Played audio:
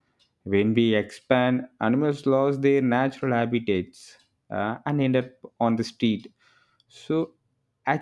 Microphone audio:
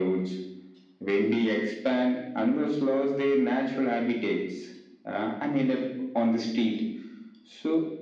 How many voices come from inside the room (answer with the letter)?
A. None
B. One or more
A